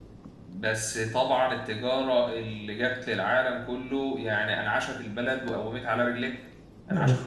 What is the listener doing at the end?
listening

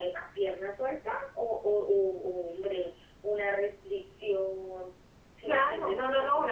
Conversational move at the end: taking over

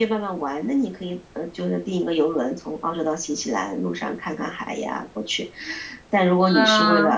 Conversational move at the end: listening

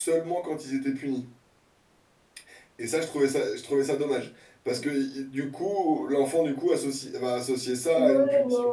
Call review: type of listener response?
taking over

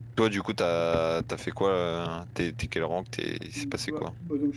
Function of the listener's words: taking over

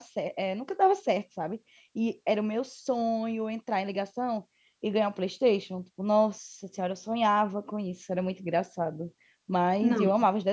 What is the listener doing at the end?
listening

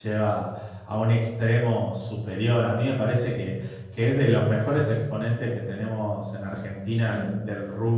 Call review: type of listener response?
listening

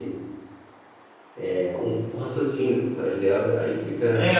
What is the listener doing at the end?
taking over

